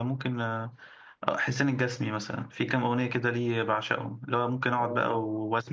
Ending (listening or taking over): listening